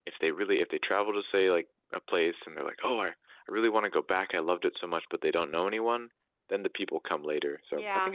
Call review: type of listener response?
taking over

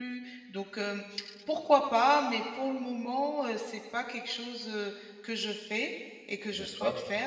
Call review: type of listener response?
listening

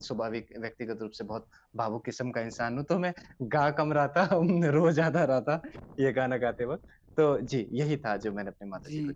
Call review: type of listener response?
taking over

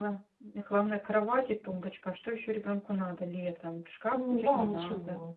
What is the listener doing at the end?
taking over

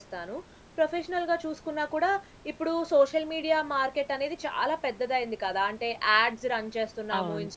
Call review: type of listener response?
listening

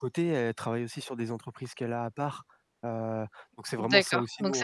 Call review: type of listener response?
taking over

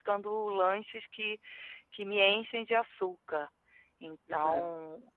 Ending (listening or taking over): listening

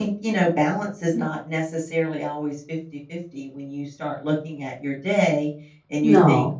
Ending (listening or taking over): listening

